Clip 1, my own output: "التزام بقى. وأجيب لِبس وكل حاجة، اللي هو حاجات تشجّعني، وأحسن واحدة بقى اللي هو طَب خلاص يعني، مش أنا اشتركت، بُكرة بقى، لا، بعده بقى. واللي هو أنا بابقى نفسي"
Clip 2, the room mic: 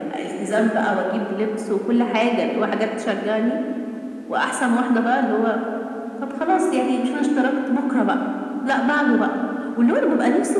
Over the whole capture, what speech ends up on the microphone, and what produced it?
echo only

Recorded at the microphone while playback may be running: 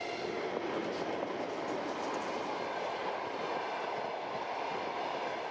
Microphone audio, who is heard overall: neither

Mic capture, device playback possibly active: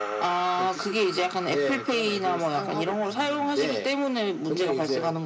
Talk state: echo only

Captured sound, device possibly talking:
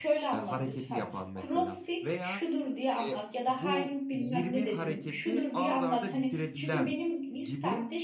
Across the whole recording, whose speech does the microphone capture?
both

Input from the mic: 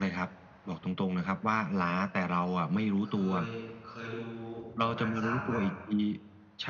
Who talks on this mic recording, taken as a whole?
both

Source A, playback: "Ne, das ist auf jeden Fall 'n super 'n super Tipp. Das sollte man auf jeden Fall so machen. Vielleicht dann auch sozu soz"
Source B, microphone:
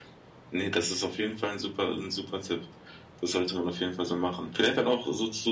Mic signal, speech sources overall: echo only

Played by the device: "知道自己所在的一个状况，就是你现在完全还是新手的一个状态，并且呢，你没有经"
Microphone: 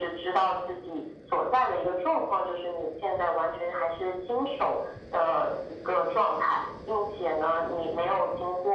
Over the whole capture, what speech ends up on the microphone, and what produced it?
echo only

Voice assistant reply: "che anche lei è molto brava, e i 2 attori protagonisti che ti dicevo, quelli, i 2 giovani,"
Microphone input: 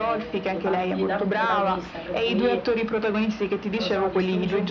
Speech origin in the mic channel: both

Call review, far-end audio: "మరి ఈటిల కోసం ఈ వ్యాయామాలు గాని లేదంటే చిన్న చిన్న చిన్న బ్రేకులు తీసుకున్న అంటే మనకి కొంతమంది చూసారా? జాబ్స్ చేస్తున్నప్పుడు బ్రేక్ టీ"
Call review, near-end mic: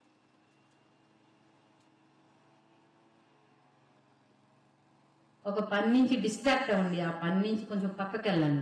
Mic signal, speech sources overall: user only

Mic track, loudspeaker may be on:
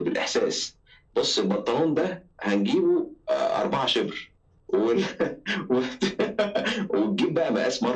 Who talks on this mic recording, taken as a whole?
echo only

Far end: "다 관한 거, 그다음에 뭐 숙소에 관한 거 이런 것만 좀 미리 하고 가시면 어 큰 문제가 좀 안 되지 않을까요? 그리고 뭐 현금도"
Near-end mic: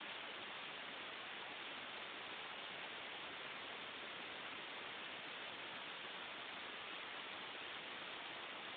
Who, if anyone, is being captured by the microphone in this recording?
neither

